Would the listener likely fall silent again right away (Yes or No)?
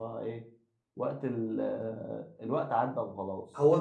No